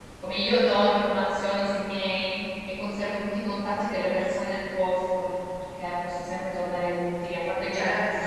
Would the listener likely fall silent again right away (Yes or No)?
Yes